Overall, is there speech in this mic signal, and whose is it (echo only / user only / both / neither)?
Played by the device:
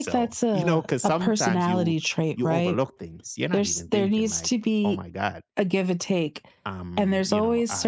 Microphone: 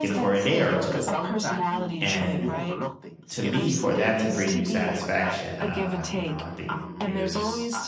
both